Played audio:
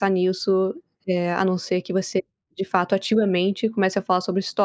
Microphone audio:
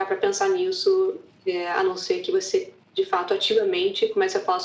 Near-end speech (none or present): none